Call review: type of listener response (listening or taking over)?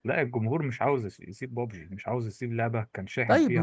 taking over